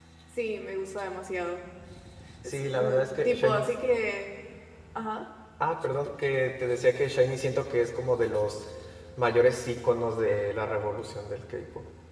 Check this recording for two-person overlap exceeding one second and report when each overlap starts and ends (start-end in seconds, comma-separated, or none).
2.4-3.7